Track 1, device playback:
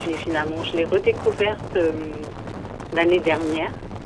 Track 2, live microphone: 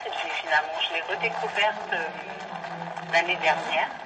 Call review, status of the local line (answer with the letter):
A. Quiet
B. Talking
B